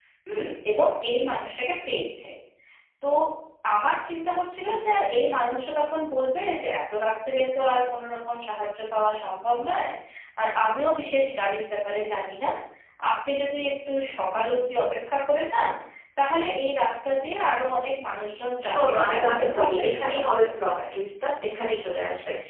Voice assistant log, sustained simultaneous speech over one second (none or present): present